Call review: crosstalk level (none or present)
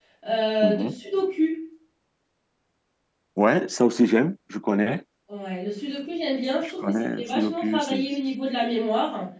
present